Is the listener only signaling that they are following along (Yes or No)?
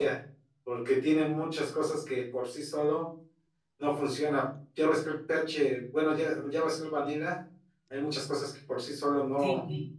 No